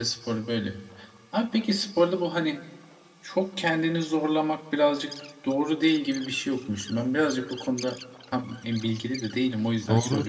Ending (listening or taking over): taking over